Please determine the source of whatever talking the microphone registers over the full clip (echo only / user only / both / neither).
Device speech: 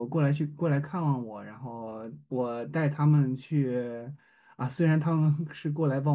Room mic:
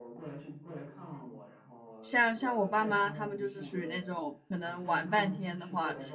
both